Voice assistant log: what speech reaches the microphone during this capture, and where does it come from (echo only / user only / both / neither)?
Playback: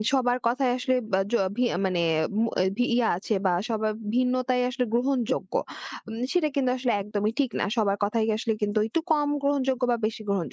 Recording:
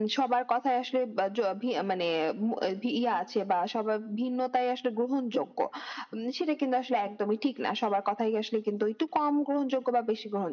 echo only